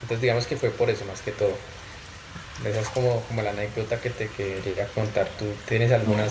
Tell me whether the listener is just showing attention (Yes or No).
No